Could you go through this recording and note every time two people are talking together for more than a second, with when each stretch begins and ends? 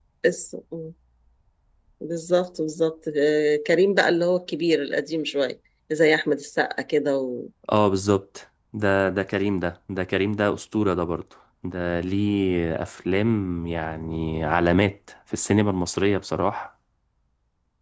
none

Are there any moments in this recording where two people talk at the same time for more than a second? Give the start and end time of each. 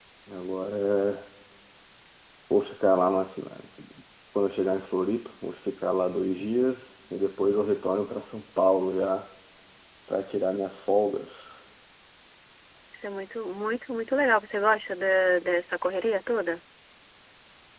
none

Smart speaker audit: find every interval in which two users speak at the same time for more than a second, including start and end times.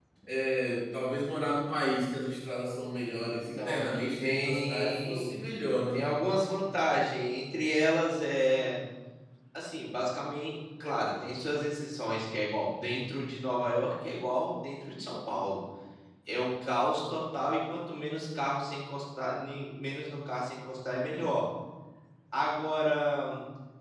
3.3-5.4

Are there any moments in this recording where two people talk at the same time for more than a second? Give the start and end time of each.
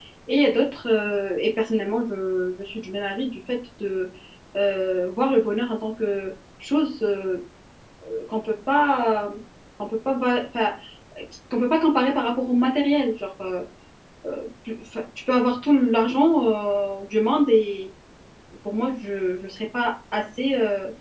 none

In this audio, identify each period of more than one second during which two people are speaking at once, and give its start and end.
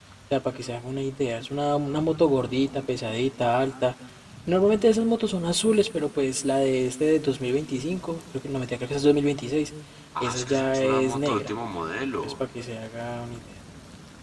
10.2-11.5

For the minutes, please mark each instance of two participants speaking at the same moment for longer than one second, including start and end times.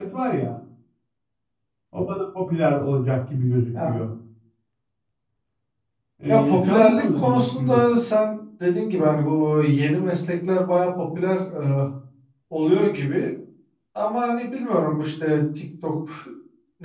6.3-8.0

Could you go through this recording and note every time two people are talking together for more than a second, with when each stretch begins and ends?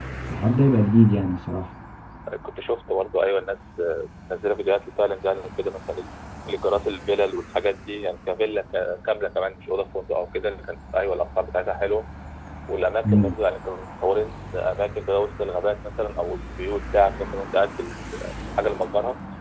none

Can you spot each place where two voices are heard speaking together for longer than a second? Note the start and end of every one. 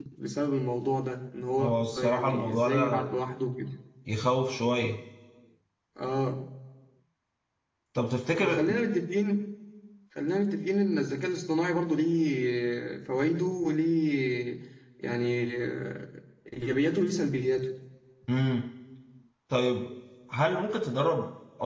1.6-3.0

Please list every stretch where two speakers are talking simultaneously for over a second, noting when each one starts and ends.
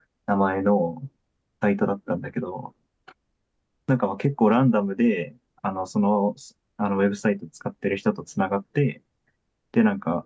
none

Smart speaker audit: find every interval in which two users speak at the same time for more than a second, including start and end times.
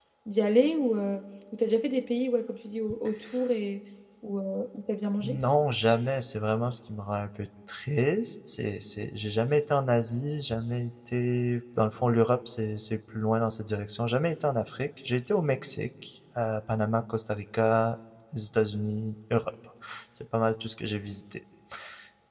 none

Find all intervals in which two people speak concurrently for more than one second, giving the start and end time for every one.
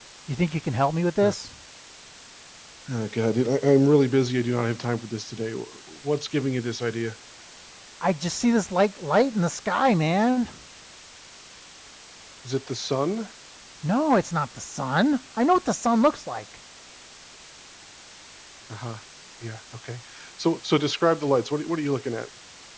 none

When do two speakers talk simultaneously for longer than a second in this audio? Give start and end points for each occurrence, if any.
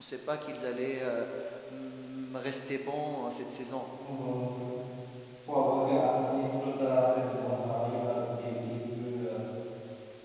none

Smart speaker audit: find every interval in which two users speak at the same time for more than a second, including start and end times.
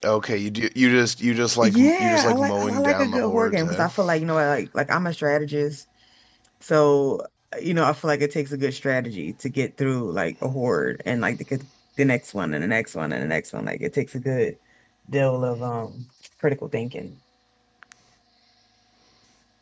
1.6-3.9

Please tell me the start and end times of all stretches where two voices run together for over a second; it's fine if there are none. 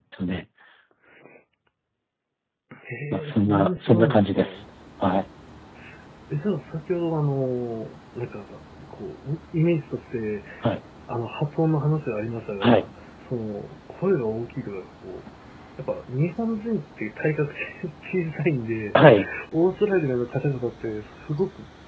3.1-4.4

